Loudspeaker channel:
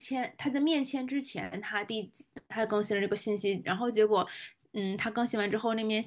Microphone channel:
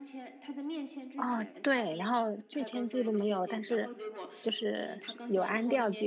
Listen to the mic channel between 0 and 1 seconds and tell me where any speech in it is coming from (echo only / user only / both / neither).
echo only